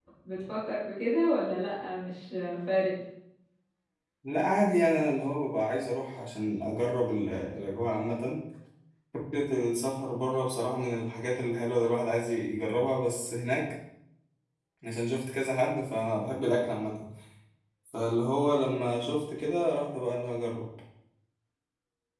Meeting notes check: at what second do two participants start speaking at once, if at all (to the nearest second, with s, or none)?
none